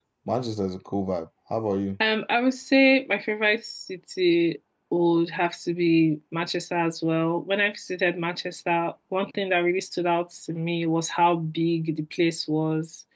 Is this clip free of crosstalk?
Yes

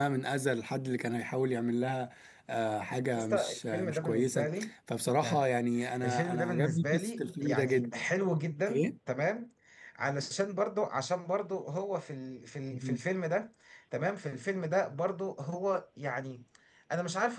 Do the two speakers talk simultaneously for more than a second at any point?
Yes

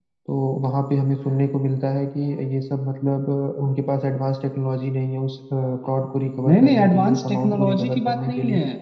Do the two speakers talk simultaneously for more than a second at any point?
Yes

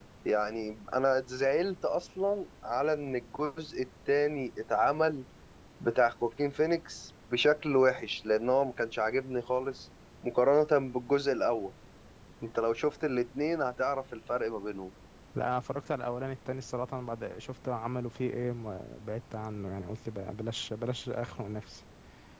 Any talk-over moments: No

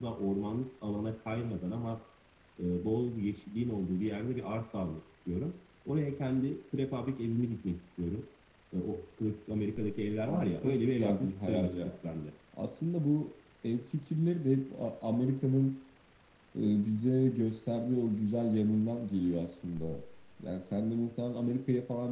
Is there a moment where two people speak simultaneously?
Yes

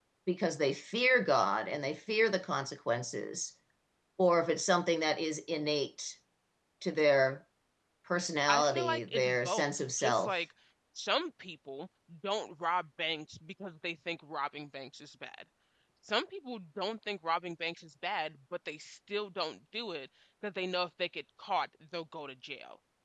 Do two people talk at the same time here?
Yes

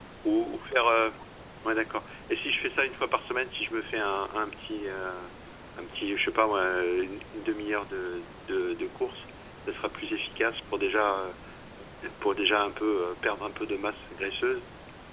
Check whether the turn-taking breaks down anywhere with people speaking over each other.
No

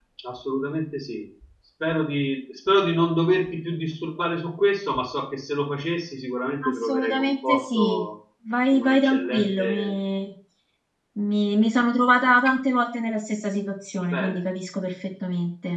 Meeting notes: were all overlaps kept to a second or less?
No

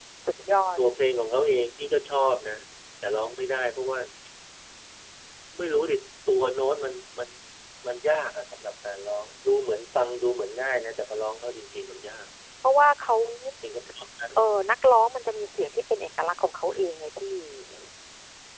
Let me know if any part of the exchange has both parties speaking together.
No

